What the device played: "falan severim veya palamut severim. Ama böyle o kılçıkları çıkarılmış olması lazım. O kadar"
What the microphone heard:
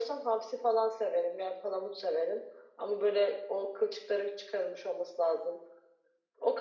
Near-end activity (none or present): none